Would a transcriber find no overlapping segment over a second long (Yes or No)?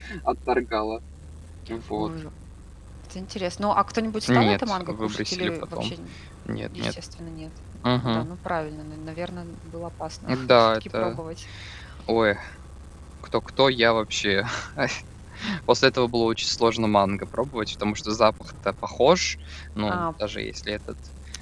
No